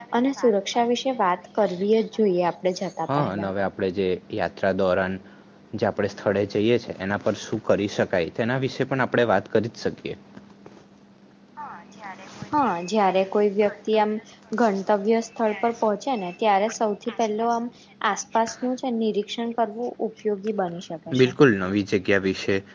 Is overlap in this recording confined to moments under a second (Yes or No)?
Yes